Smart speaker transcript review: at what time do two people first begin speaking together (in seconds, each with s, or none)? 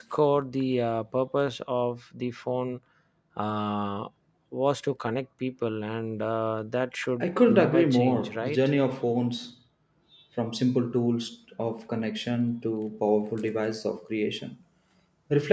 7.2 s